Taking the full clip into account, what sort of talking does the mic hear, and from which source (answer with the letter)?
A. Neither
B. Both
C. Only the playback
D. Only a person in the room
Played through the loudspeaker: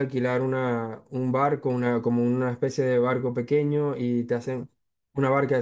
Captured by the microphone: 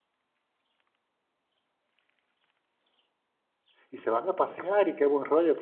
D